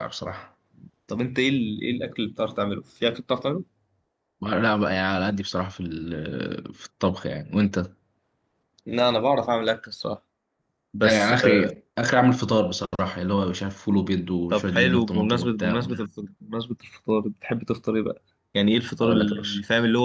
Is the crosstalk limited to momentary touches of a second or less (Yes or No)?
No